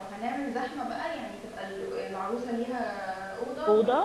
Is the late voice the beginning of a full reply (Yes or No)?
No